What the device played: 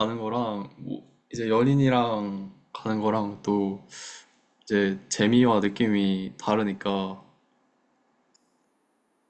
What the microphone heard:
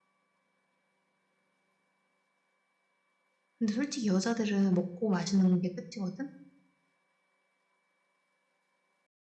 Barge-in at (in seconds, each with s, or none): 3.6 s